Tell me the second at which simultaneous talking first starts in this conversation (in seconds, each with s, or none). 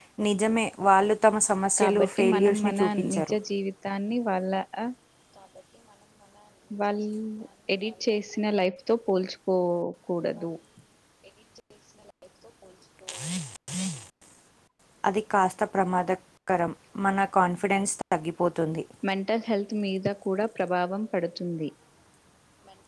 1.8 s